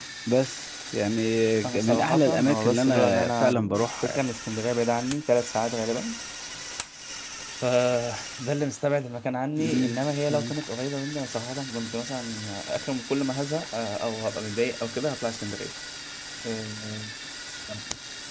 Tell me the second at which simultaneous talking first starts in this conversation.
2 s

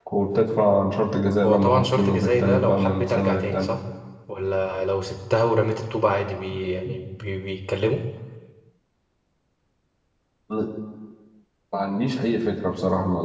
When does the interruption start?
1 s

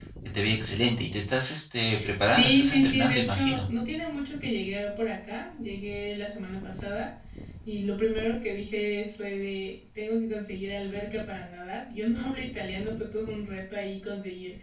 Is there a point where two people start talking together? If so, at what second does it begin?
2 s

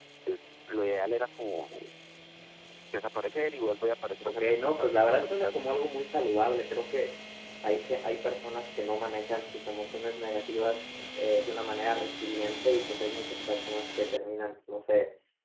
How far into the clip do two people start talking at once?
4 s

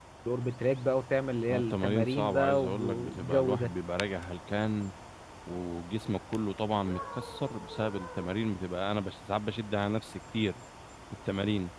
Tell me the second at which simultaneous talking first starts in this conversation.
1 s

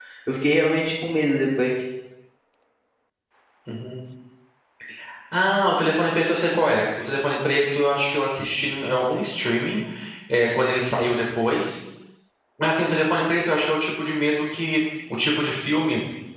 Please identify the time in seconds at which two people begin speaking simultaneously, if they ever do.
none

